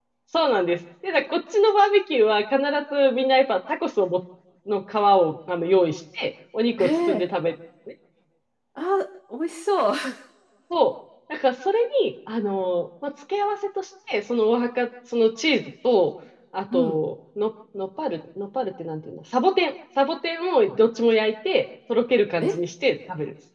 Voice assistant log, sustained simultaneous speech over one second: none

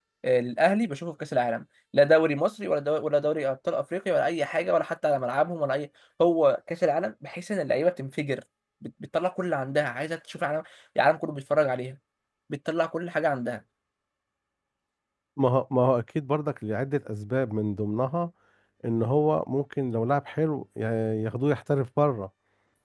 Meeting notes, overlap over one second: none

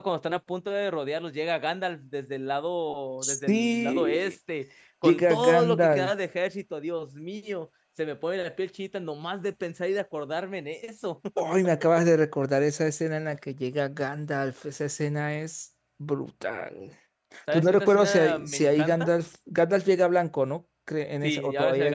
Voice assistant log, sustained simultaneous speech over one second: present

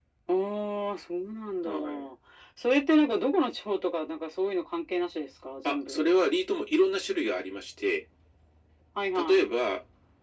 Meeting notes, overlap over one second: none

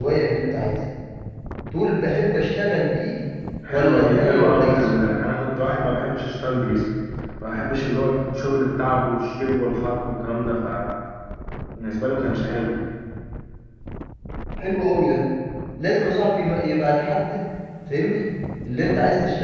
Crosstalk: present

